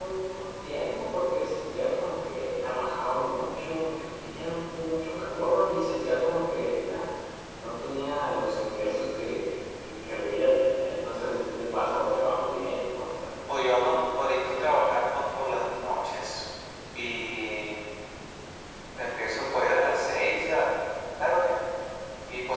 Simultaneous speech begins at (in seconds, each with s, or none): none